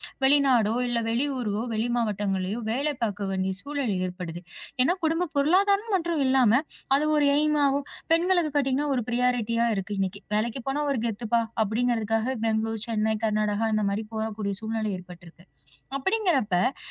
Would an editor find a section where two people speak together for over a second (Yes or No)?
No